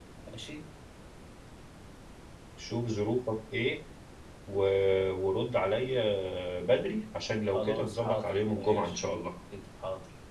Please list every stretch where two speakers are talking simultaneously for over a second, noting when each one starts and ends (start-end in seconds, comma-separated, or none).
7.5-8.9